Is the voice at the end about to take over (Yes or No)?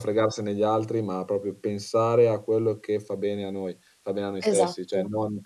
No